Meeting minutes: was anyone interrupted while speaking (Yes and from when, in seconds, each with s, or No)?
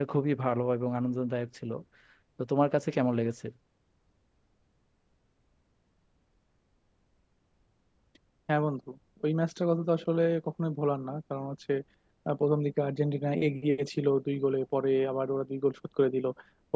No